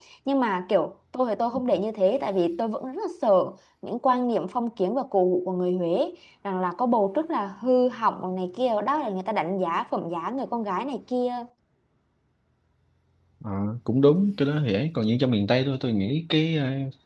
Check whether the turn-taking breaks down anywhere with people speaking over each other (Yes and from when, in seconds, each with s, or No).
No